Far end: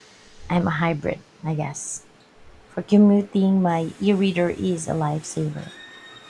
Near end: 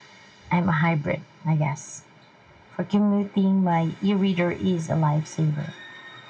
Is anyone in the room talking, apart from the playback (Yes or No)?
No